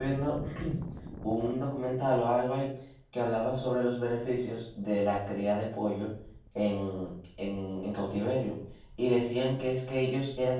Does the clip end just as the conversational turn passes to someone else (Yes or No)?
No